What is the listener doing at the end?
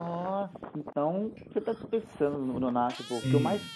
listening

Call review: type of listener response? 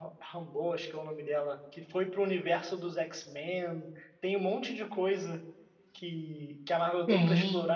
listening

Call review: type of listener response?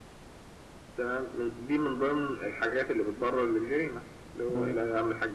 listening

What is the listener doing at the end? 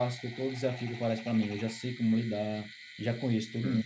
listening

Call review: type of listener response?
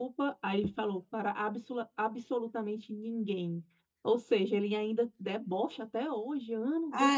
taking over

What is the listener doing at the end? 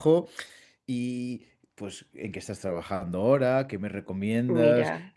listening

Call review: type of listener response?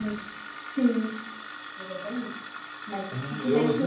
taking over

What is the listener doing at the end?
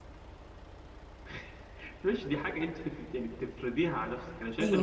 taking over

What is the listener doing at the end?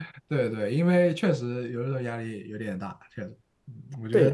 taking over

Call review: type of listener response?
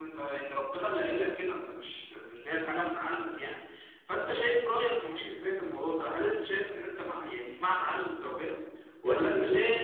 listening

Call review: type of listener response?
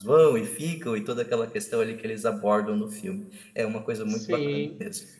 taking over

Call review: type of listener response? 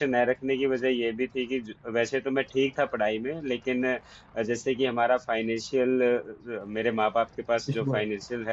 listening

